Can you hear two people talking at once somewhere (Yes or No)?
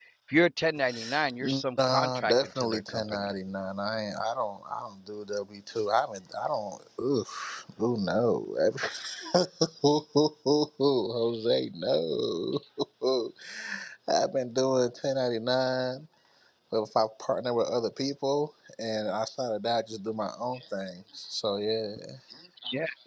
Yes